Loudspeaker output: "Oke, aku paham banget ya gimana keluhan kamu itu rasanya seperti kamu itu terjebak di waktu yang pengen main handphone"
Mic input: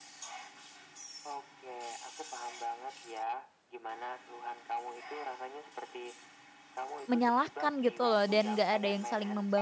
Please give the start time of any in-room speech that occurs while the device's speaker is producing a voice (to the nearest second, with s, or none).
7 s